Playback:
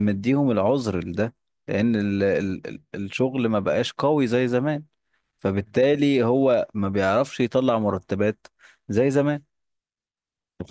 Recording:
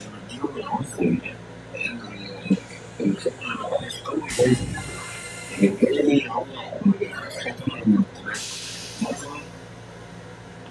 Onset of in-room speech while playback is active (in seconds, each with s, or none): none